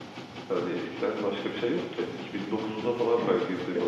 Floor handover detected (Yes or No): Yes